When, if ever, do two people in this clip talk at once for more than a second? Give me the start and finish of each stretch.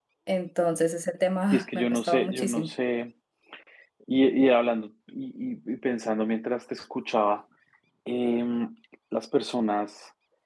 1.5-2.7

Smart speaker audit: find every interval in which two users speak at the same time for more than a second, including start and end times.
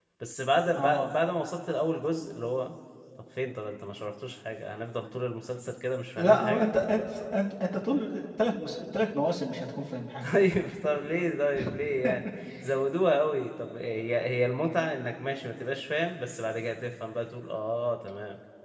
none

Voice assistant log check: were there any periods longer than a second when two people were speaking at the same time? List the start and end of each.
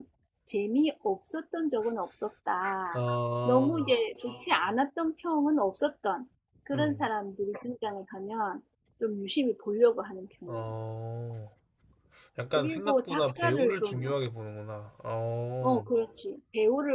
12.5-14.2

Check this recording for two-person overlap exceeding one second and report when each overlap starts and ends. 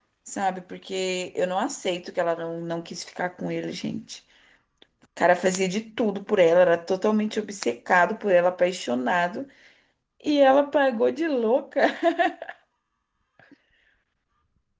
none

